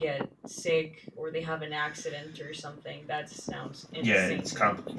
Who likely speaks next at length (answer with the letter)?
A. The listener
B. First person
A